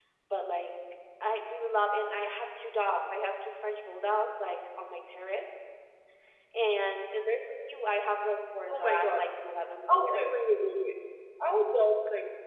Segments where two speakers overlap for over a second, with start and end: none

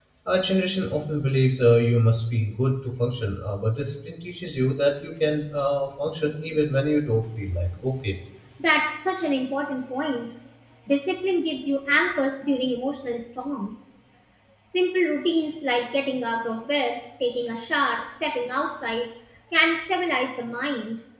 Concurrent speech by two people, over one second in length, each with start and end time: none

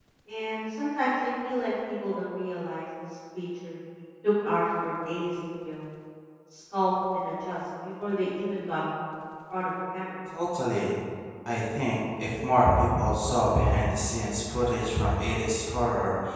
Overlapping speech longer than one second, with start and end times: none

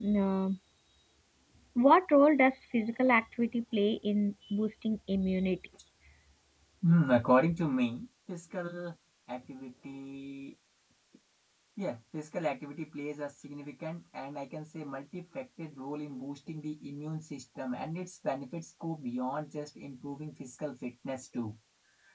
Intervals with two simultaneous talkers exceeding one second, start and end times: none

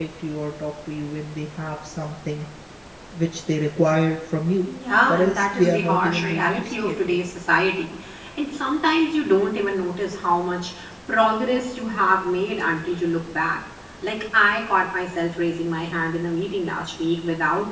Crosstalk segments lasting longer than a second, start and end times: 5.1-7.2

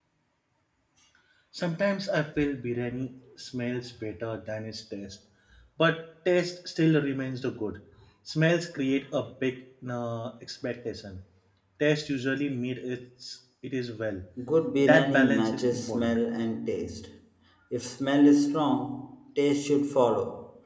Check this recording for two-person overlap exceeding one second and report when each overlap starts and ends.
14.8-16.2

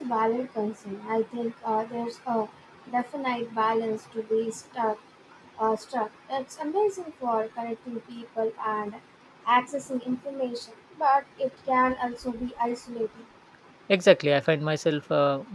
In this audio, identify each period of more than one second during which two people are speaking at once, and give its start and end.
none

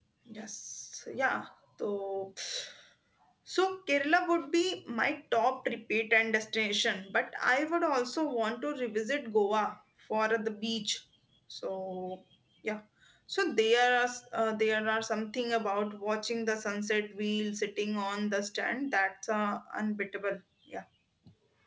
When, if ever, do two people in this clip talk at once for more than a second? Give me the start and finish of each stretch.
none

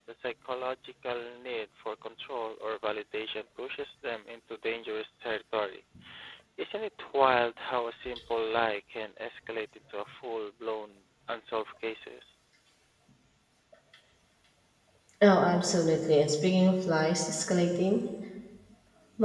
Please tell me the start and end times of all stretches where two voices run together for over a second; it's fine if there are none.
none

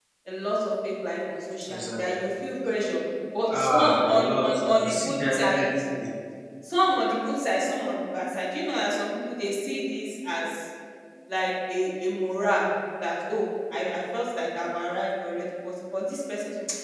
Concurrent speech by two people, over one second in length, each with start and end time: 3.6-5.7

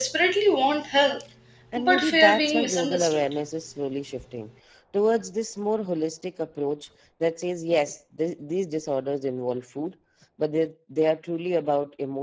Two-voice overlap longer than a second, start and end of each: 1.8-3.3

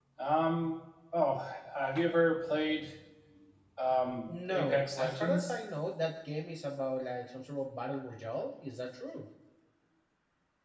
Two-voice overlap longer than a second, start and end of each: 4.3-5.5

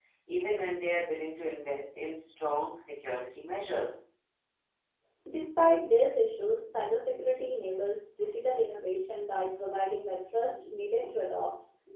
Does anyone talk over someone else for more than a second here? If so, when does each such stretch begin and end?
none

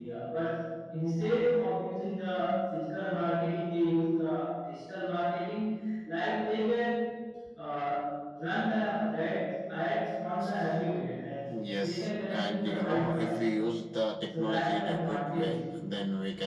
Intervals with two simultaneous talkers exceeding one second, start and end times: 11.5-13.4, 14.4-15.6

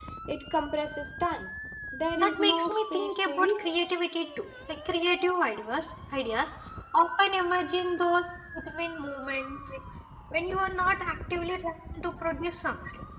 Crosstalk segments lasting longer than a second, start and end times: 2.2-3.7

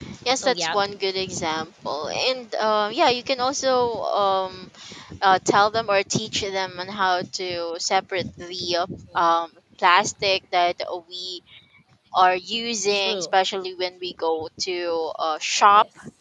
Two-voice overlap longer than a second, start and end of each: none

